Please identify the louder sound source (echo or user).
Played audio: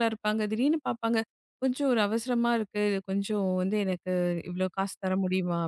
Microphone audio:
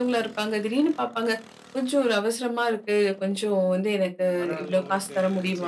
echo